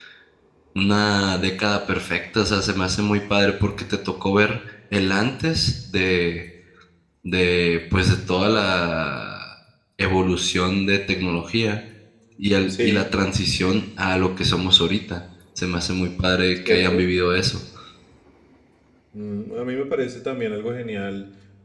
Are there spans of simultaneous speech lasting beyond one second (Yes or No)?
No